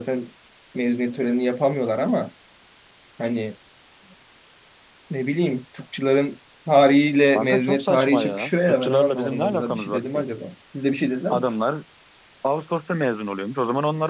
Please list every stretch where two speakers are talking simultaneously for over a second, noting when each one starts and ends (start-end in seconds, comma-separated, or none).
7.3-10.2